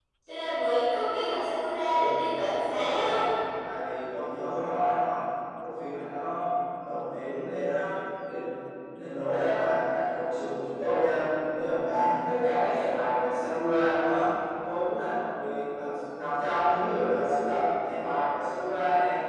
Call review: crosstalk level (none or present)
present